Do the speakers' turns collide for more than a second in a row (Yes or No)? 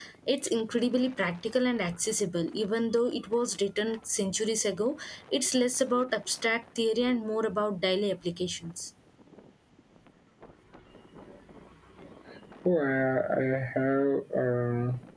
No